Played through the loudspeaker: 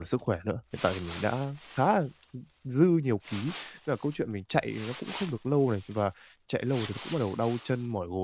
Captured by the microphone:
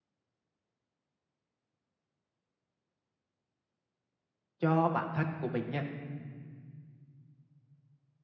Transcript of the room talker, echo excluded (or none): cho bản thân của mình nha,